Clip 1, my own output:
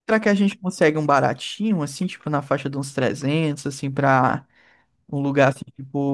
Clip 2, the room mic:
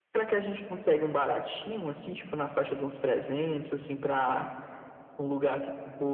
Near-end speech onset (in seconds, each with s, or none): none